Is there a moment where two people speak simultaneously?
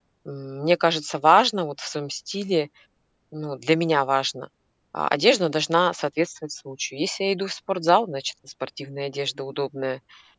No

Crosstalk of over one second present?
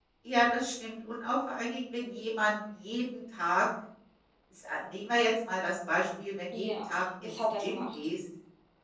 Yes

